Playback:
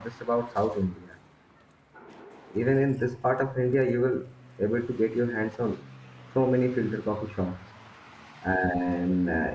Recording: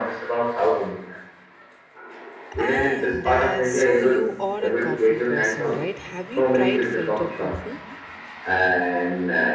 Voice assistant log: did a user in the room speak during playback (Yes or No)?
Yes